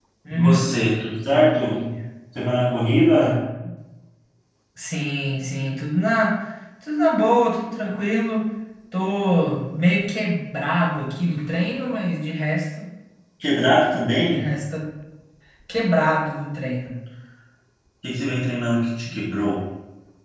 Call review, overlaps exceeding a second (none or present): none